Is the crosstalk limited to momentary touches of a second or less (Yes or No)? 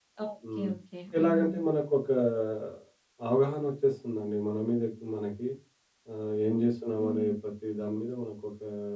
Yes